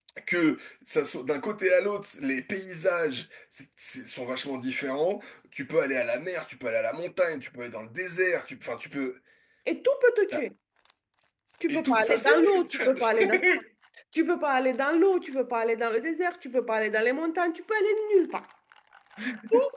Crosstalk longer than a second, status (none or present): present